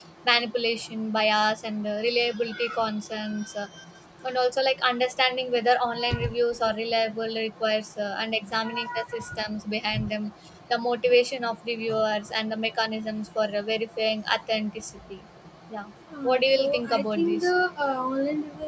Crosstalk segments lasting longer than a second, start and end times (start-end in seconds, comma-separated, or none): 16.2-17.5